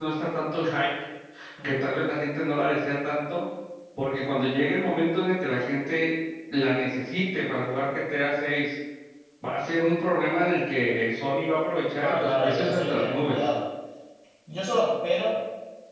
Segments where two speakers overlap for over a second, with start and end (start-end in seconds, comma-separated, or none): 12.0-13.4